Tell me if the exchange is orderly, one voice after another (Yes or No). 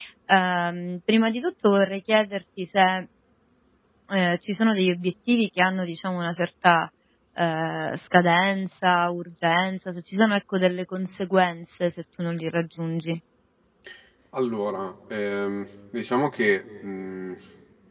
Yes